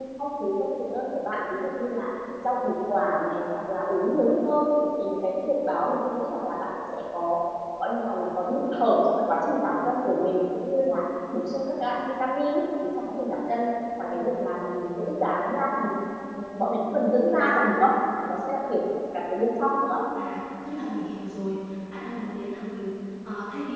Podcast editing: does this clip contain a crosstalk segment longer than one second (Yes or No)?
No